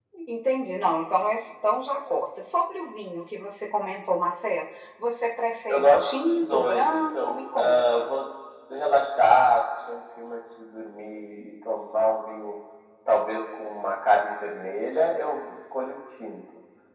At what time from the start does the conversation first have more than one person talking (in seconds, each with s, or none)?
5.7 s